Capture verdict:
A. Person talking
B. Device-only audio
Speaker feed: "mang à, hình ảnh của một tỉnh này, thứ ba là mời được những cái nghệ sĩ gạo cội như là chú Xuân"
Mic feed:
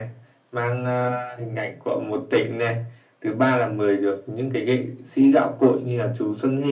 B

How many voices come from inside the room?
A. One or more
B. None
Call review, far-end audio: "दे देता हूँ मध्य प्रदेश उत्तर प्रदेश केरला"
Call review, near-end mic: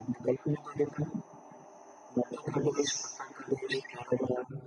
B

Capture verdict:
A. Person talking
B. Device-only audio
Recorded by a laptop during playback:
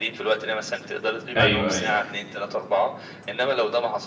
A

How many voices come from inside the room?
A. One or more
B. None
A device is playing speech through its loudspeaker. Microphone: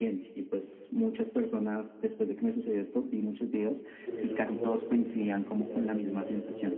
A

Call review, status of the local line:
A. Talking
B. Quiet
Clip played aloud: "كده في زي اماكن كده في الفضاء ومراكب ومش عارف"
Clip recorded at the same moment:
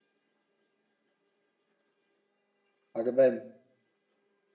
A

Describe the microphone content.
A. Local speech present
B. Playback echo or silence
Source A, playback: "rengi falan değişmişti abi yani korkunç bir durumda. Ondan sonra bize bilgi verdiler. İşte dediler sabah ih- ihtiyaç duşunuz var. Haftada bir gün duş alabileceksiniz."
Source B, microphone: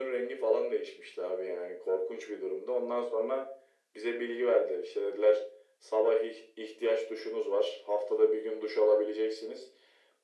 B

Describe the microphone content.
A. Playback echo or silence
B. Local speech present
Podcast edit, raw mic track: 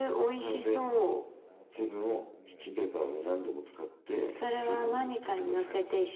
B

